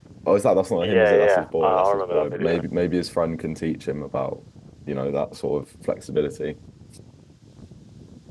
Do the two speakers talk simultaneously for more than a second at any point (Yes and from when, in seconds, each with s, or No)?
Yes, from 0.8 s